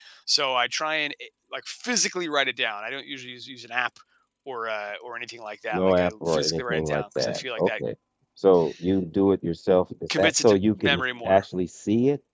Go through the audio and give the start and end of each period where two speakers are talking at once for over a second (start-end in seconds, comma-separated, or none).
5.7-7.7, 10.2-11.4